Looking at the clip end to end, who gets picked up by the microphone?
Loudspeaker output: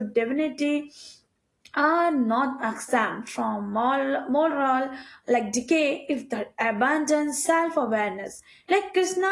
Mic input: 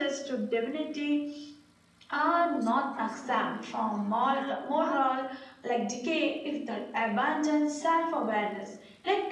both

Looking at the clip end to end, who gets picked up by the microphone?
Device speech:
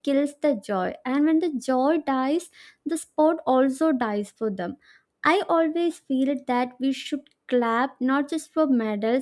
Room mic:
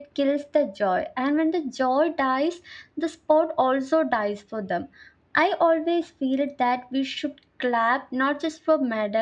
echo only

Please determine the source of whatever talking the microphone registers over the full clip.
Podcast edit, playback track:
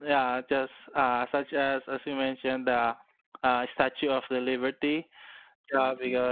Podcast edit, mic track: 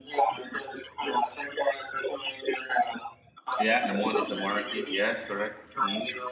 both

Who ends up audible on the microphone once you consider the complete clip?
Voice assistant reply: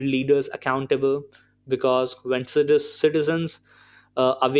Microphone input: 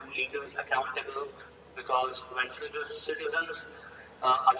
echo only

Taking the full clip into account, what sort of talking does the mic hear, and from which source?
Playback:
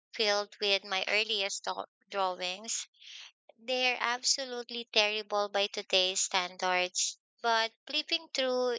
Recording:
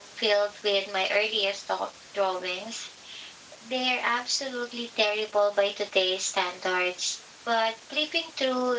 echo only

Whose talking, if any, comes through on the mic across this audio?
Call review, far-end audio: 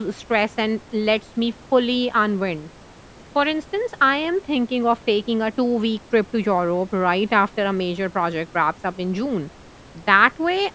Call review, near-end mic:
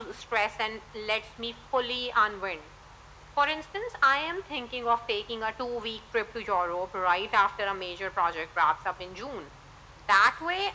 echo only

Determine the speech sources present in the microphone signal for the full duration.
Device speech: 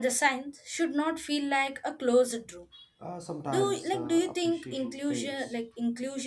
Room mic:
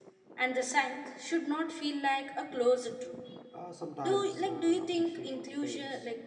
echo only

